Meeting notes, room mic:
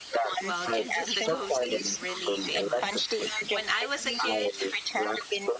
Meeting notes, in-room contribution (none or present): present